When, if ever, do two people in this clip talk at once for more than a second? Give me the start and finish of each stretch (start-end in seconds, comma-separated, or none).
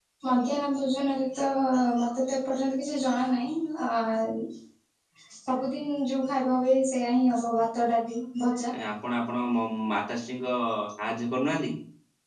none